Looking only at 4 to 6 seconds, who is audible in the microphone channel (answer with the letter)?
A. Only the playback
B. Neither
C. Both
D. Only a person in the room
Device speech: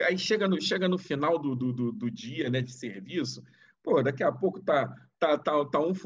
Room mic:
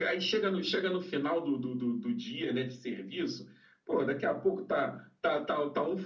A